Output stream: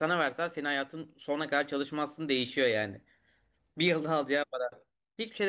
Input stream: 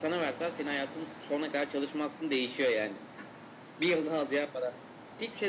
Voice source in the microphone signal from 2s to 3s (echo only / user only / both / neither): echo only